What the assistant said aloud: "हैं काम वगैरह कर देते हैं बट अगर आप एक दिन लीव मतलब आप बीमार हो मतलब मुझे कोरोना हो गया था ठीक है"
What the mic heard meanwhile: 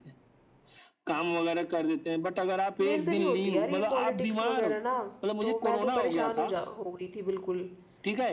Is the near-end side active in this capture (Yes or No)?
Yes